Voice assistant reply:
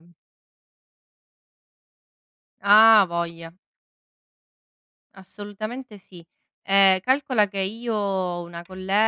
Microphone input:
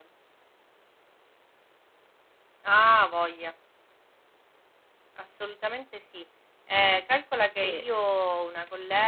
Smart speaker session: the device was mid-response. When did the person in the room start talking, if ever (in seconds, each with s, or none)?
7.5 s